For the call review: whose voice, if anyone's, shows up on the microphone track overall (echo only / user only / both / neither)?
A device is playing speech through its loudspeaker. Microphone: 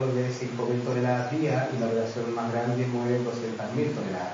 echo only